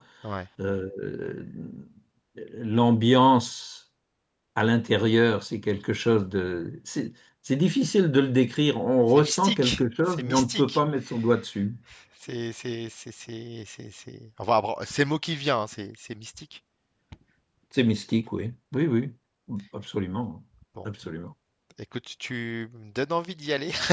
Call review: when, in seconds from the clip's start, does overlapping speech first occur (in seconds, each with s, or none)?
9.1 s